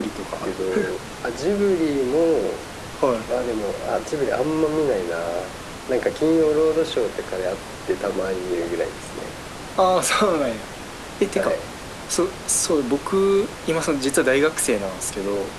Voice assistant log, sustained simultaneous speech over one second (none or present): none